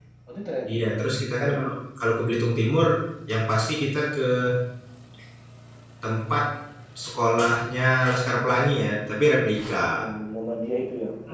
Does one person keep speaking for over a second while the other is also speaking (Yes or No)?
No